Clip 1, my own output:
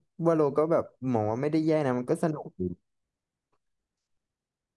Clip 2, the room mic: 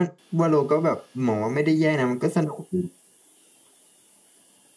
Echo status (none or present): present